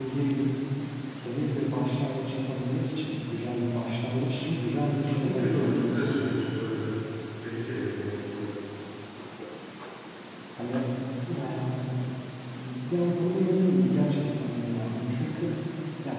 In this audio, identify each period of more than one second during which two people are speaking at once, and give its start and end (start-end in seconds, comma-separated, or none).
5.1-6.4